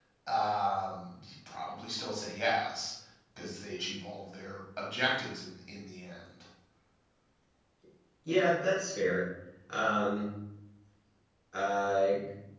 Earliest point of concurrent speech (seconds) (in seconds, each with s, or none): none